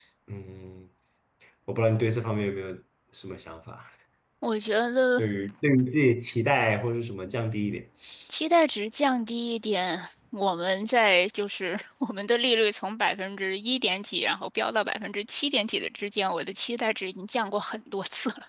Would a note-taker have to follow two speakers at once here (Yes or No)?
No